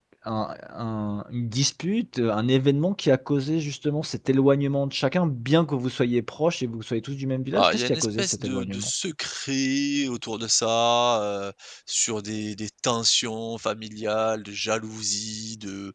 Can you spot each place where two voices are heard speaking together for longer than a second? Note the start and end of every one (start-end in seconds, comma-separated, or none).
7.6-8.9